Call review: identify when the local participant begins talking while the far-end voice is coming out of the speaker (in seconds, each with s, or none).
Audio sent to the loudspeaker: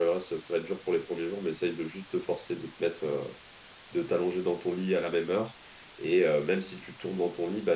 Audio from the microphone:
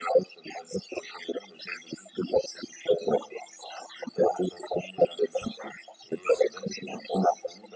none